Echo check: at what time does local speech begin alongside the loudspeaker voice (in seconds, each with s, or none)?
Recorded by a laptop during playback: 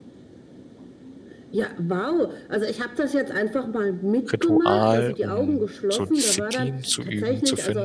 4.3 s